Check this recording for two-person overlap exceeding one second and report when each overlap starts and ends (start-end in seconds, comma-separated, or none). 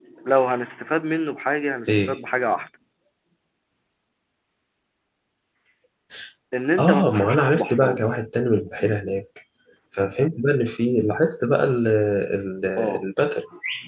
6.8-8.0